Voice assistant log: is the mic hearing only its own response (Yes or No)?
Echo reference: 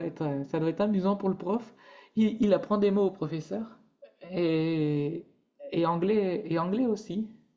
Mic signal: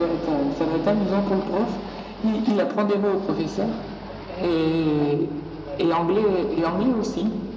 Yes